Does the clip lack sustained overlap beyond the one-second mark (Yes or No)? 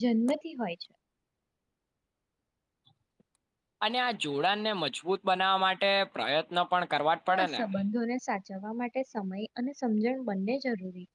Yes